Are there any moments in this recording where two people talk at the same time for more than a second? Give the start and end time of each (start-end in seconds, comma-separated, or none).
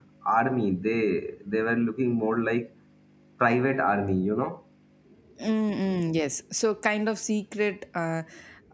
none